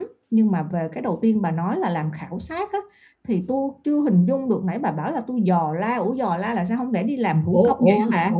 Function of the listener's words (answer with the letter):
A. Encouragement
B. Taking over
B